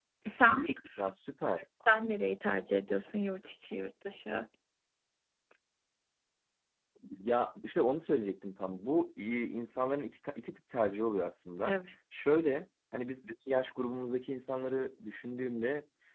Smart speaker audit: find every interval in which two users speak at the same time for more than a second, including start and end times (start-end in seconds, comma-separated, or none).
none